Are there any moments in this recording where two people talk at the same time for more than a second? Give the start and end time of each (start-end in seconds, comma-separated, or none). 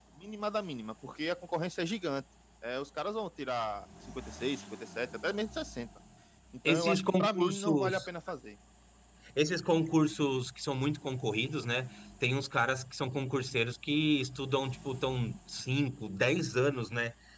6.7-8.0